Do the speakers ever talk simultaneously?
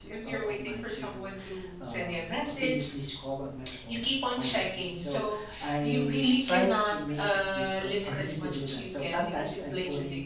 Yes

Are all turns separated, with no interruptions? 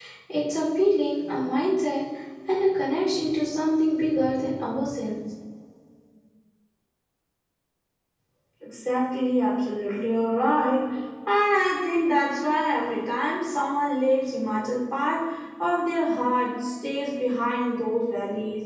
Yes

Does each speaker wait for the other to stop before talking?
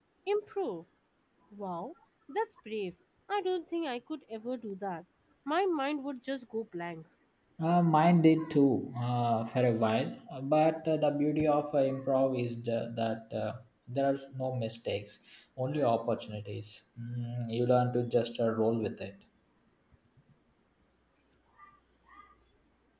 Yes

